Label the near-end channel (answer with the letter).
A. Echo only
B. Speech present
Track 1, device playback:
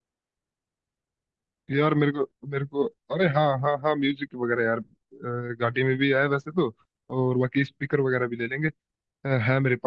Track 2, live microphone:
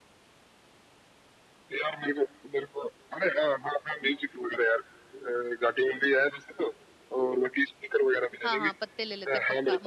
B